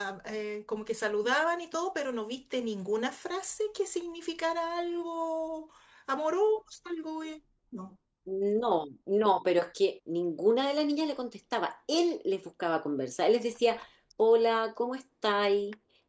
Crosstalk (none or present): none